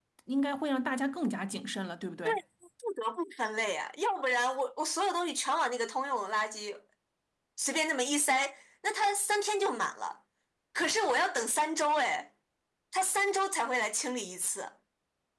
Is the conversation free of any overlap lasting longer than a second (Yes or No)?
Yes